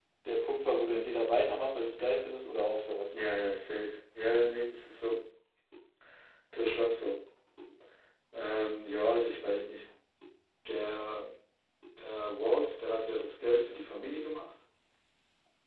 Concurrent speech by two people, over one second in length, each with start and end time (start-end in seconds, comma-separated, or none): none